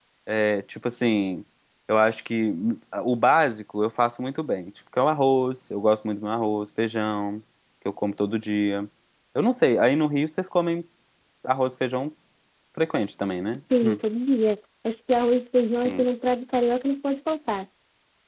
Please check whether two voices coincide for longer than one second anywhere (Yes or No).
No